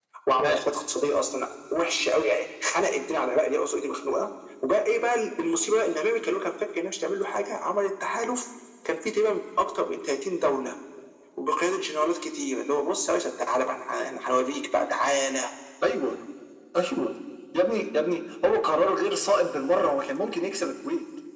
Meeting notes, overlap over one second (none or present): none